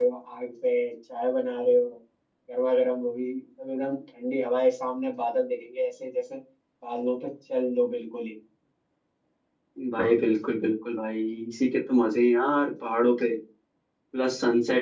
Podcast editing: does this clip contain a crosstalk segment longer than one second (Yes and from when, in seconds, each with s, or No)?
No